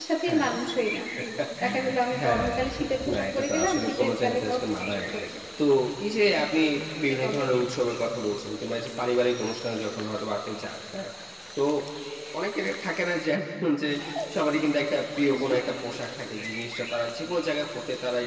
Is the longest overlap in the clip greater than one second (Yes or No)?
Yes